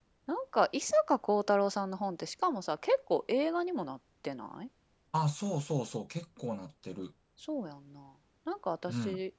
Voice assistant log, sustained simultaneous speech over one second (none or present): none